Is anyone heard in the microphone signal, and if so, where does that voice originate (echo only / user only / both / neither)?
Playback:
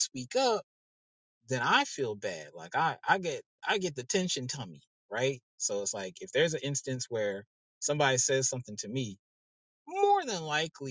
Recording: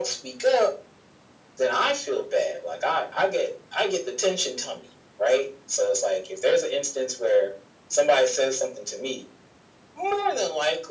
echo only